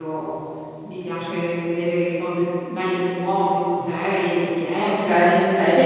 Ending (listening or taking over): taking over